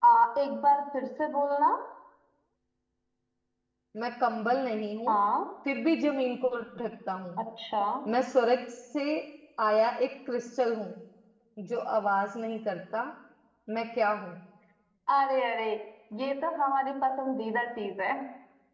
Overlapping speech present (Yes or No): No